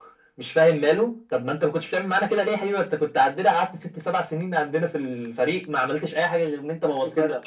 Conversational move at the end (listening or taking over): listening